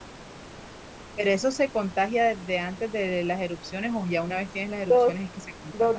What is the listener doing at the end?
taking over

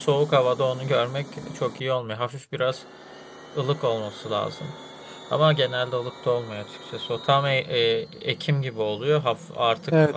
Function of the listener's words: listening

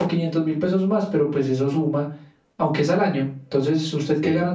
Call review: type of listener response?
listening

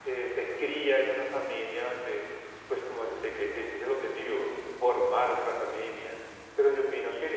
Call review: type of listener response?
listening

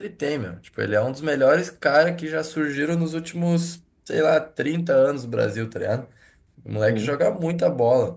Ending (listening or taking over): listening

